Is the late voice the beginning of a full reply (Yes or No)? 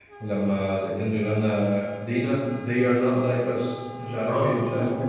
Yes